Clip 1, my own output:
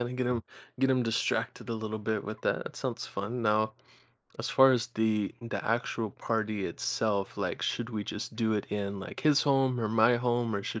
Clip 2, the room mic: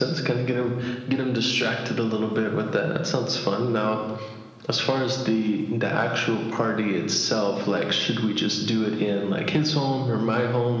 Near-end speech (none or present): none